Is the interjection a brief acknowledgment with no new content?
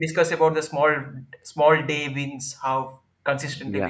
No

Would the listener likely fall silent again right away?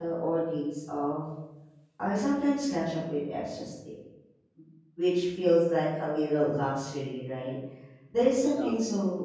Yes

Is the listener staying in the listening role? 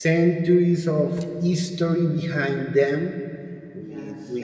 Yes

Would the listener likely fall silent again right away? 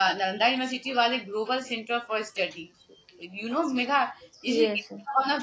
Yes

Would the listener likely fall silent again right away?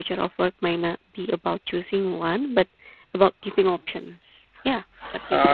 No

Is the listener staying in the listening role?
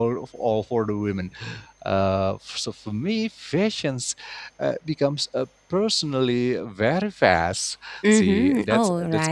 No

